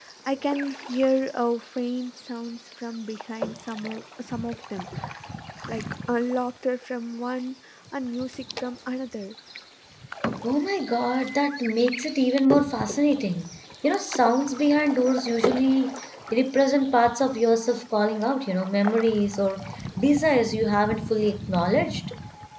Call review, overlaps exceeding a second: none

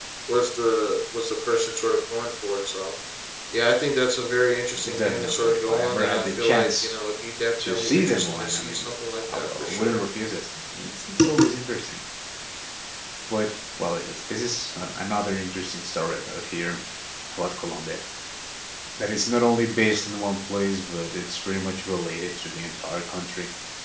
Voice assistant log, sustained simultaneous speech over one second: present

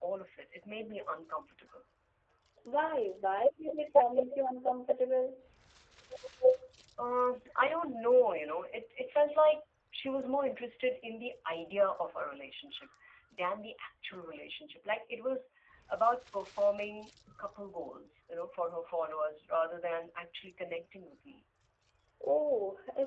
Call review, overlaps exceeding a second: none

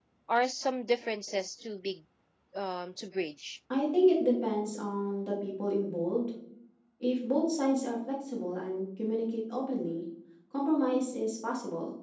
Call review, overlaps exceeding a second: none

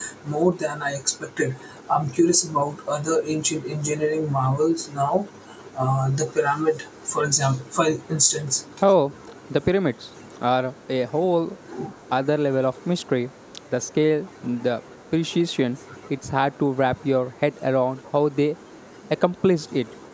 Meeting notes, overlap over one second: none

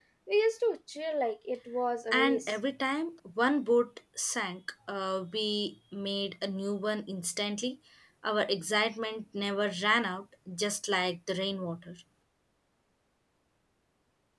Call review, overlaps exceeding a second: none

